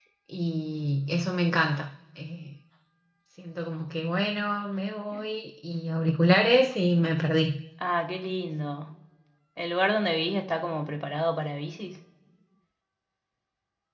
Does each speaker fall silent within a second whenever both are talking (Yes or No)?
Yes